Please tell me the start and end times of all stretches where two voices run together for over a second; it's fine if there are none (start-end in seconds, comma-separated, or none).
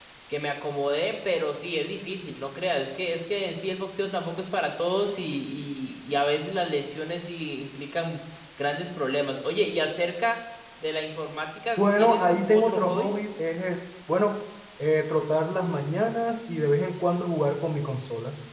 11.8-13.1